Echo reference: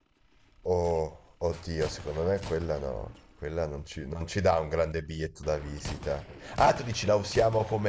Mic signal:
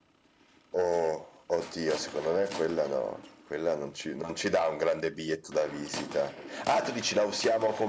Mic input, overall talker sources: echo only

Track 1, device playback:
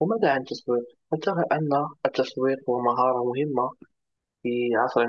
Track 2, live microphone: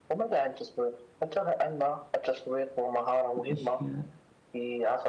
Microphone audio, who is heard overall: both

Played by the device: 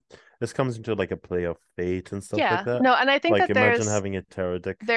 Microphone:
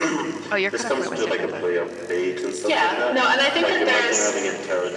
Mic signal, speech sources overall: both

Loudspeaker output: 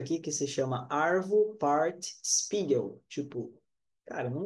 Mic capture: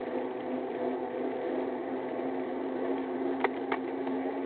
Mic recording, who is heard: neither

